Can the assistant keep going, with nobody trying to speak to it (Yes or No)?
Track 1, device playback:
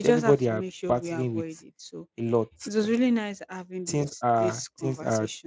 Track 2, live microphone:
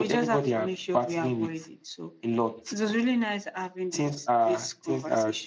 Yes